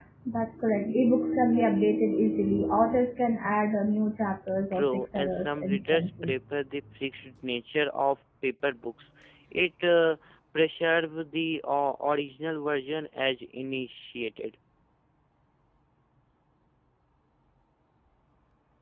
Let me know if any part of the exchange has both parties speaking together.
Yes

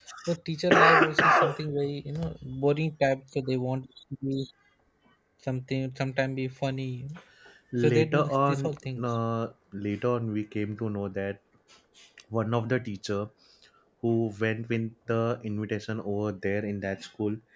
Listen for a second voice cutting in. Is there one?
Yes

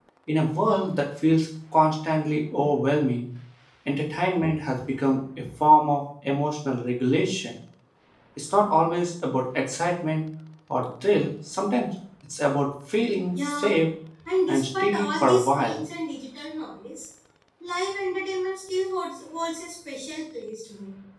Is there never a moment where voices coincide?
No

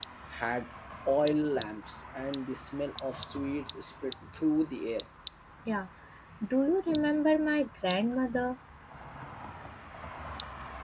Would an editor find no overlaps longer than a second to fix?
Yes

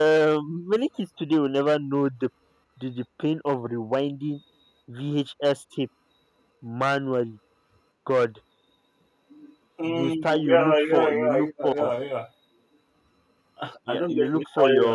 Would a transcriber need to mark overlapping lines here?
Yes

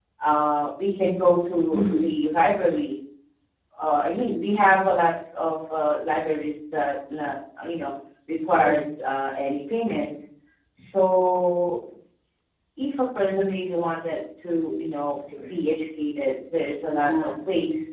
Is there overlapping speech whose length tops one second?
No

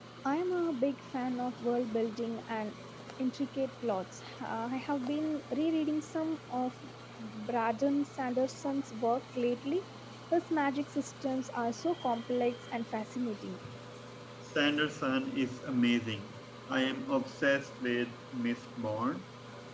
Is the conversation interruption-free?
Yes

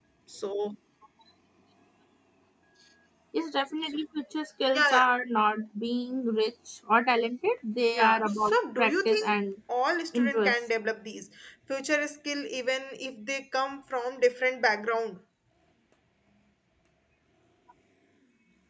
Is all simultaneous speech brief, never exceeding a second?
No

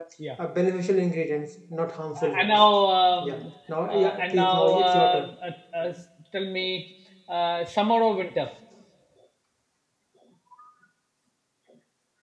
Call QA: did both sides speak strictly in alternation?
No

